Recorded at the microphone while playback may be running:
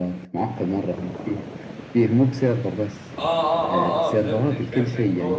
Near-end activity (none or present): present